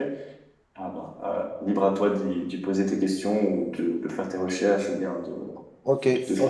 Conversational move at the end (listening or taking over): taking over